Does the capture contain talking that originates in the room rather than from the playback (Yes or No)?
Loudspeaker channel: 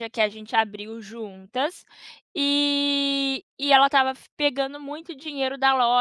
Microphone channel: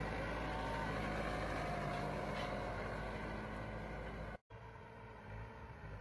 No